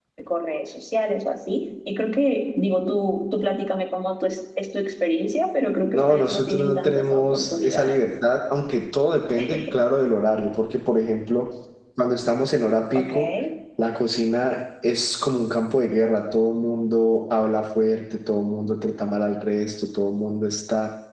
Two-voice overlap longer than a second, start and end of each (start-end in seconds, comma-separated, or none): 5.9-8.0